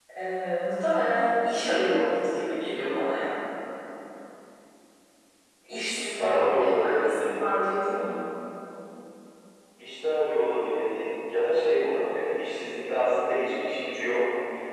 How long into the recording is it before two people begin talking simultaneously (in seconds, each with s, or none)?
5.8 s